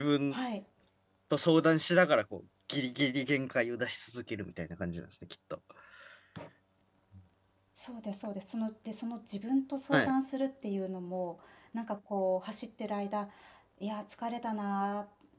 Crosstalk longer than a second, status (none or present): none